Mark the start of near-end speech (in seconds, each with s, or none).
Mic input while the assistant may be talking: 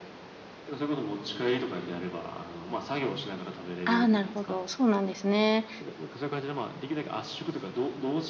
3.8 s